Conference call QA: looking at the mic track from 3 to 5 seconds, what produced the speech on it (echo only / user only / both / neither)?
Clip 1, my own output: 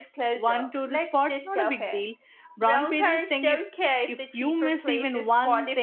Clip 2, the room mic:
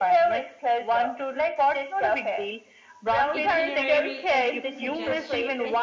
both